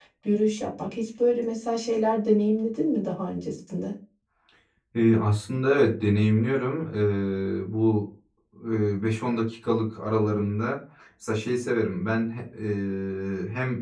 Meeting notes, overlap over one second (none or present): none